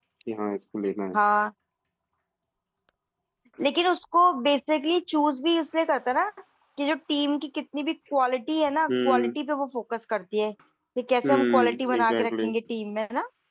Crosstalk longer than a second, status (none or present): present